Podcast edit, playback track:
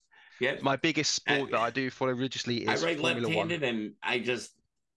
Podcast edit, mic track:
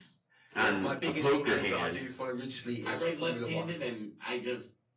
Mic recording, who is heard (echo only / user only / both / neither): both